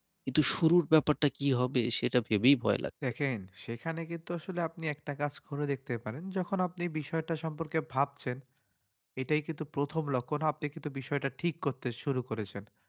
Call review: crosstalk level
none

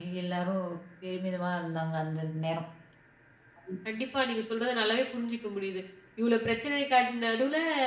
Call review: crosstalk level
none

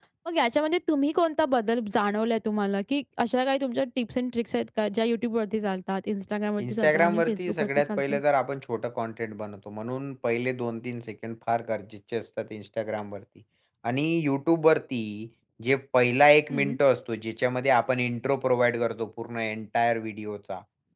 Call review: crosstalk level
present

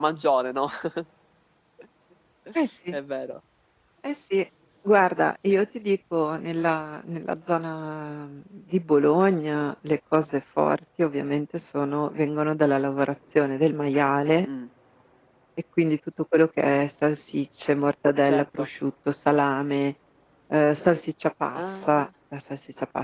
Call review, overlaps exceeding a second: none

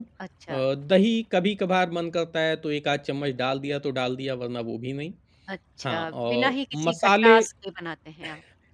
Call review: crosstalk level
present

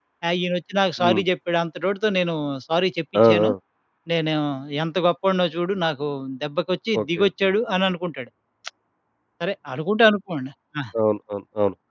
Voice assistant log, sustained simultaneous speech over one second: none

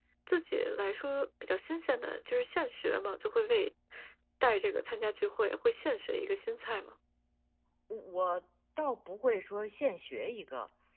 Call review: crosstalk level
none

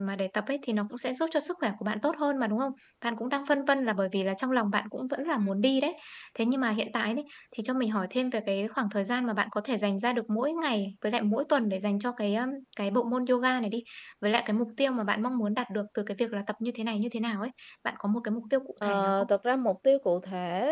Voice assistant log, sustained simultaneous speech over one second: none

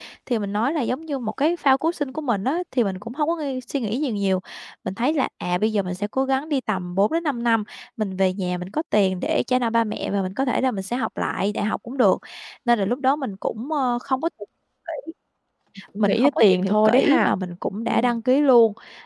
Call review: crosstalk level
present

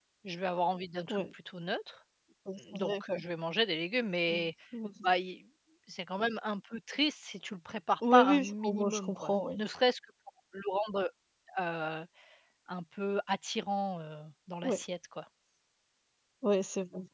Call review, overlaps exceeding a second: present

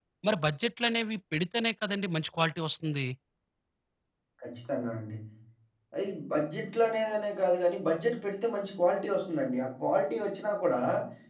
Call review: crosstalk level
none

